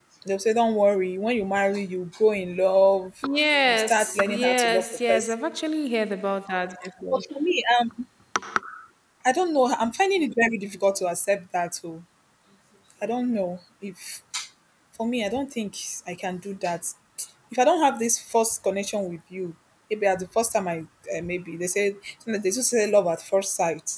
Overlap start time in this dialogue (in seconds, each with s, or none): 3.7 s